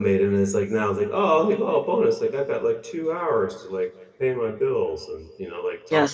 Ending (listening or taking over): taking over